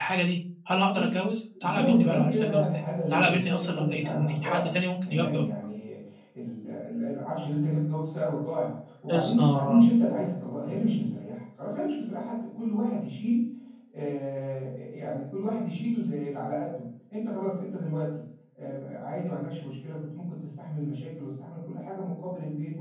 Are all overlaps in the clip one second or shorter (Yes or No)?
No